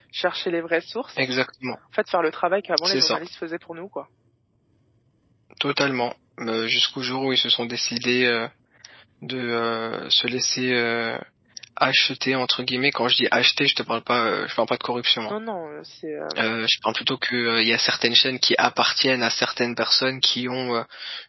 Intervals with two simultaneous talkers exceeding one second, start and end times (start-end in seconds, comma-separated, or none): none